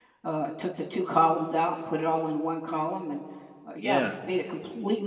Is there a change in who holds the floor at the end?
No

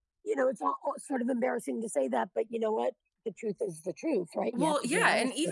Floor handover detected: Yes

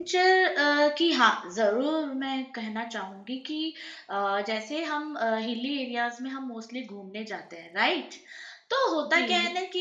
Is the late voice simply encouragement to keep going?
Yes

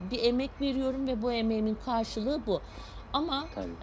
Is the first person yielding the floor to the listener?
No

